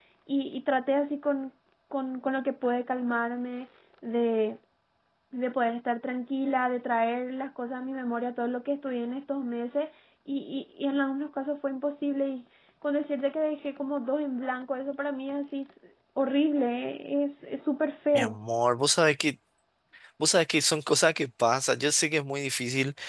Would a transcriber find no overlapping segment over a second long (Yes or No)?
Yes